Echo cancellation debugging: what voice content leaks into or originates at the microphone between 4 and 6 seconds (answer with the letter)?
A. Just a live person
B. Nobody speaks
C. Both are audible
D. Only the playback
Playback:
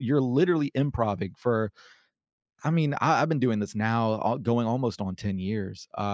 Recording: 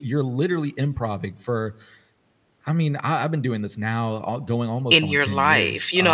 C